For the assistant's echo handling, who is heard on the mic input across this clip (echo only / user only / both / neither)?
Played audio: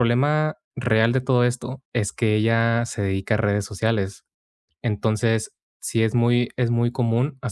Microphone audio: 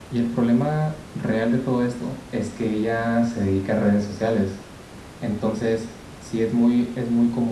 echo only